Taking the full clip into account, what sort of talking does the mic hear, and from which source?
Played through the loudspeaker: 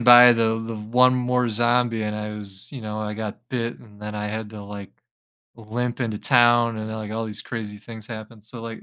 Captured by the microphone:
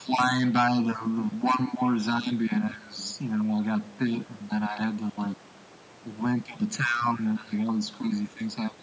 echo only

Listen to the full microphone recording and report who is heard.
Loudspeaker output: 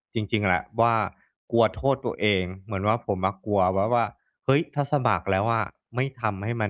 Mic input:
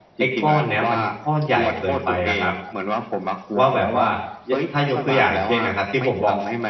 both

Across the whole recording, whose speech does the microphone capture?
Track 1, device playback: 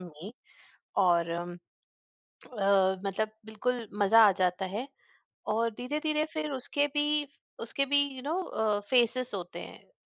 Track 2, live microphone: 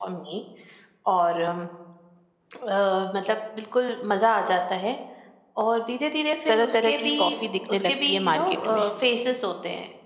both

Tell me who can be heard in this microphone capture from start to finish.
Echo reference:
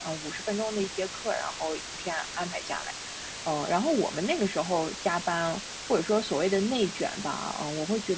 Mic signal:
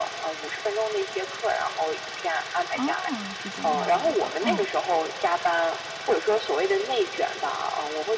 both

